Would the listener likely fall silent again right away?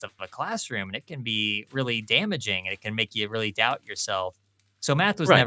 Yes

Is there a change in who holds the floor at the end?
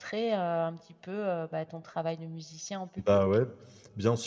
Yes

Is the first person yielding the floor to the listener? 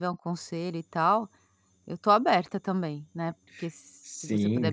Yes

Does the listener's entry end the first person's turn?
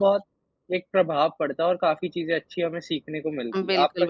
Yes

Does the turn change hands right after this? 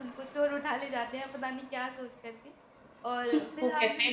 Yes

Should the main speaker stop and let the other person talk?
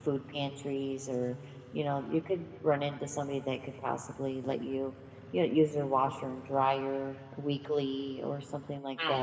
Yes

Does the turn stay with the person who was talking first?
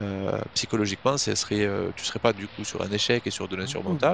Yes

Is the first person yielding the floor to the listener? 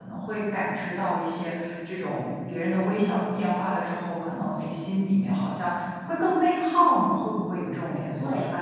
Yes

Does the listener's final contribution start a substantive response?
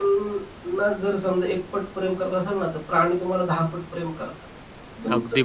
Yes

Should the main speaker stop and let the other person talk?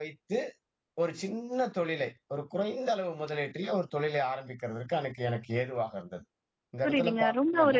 Yes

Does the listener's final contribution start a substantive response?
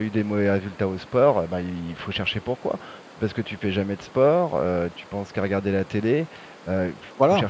No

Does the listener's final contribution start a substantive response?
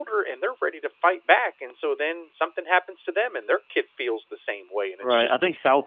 Yes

